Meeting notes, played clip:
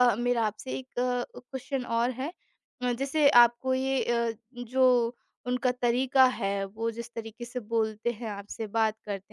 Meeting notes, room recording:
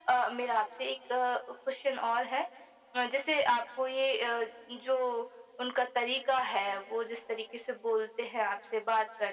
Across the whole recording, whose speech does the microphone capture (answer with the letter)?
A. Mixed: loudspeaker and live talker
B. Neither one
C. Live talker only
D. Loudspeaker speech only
D